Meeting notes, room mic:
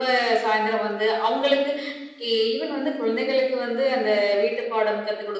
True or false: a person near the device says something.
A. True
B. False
B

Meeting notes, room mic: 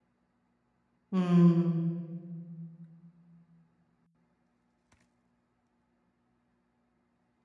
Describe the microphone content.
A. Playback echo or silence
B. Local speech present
B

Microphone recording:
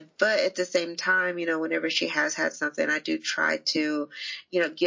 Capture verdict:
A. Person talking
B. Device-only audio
B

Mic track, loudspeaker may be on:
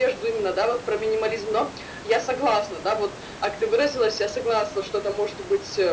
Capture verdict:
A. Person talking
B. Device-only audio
B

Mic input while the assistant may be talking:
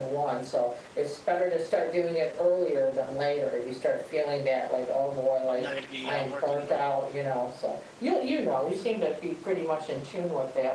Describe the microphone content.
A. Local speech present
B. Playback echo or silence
A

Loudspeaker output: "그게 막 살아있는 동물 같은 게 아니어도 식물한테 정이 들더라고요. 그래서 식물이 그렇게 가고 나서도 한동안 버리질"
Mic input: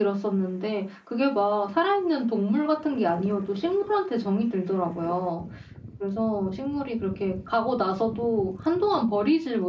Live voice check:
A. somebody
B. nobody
B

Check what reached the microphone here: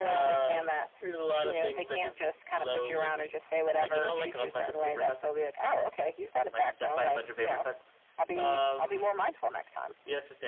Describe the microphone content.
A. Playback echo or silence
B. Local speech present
A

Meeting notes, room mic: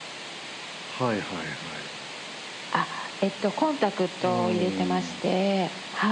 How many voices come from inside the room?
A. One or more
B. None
B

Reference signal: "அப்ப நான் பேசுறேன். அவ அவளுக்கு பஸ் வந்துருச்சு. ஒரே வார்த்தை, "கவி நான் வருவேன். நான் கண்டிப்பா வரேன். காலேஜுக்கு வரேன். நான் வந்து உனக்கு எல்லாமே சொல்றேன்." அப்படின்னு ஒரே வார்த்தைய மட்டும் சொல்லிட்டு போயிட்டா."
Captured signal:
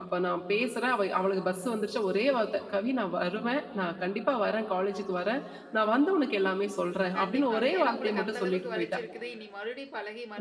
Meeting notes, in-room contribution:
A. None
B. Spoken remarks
B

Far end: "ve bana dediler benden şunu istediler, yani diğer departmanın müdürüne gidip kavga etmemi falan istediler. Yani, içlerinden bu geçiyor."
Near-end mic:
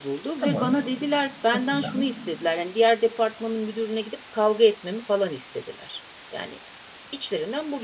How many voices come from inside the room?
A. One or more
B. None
A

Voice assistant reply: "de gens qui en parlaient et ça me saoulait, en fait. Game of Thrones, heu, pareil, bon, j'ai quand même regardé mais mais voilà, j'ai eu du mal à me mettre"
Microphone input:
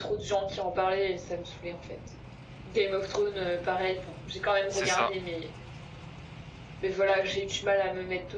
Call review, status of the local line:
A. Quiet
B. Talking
B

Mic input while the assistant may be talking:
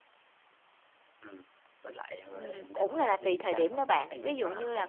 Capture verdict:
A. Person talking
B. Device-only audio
A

